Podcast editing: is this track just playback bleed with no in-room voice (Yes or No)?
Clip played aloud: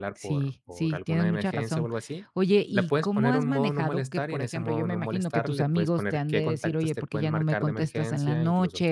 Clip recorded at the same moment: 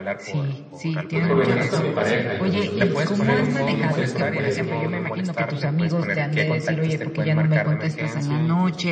No